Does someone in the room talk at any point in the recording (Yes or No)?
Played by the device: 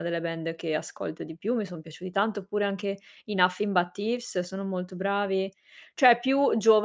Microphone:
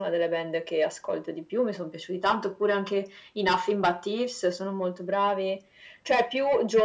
No